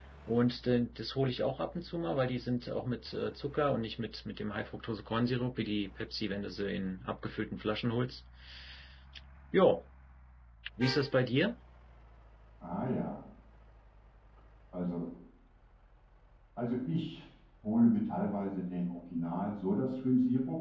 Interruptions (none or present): none